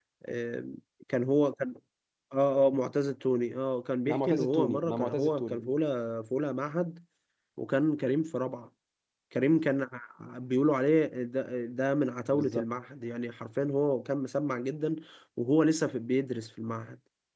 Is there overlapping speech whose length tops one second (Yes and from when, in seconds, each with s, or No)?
Yes, from 4.1 s